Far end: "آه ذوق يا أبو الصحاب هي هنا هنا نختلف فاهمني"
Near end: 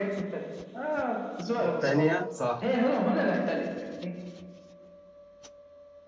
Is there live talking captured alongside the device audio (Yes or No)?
Yes